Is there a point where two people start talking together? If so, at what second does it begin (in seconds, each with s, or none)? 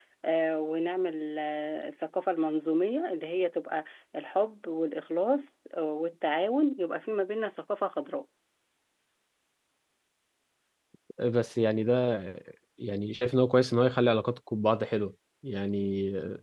none